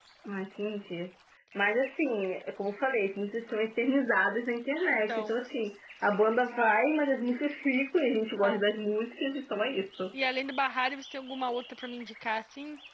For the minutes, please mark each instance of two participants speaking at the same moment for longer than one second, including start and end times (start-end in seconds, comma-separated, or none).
none